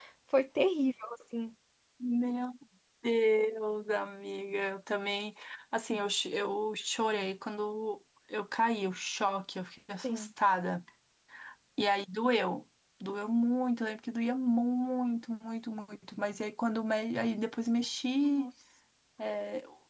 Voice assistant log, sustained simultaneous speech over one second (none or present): none